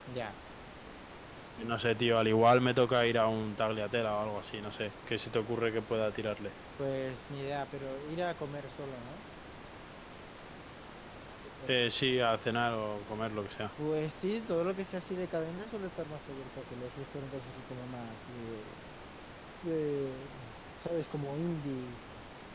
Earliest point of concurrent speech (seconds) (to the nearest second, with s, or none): none